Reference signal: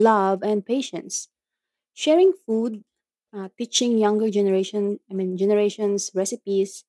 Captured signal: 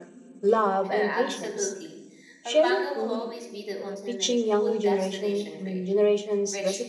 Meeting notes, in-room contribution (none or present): present